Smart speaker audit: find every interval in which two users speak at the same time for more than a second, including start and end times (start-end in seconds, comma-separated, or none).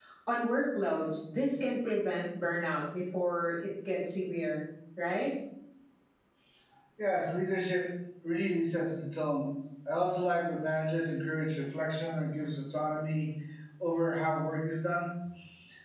none